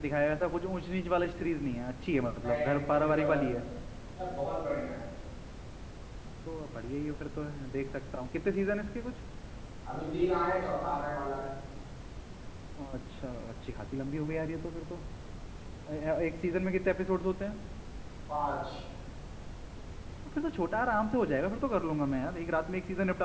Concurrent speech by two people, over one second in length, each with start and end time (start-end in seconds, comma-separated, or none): 2.4-3.6